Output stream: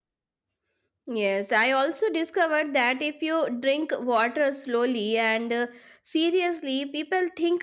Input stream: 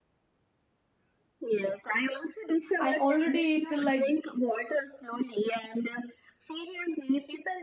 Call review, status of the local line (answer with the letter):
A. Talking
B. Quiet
A